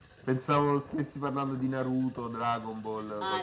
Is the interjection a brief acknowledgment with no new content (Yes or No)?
No